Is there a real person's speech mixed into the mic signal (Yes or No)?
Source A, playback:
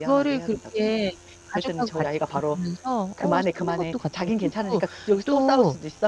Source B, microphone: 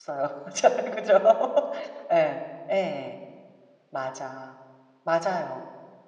Yes